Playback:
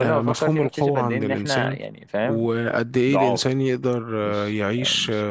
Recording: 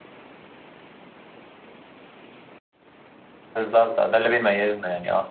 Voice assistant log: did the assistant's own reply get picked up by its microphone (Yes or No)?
No